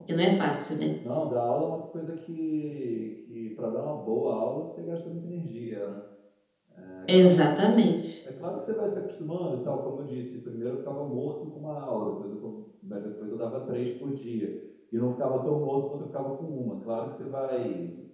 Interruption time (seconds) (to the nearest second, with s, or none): none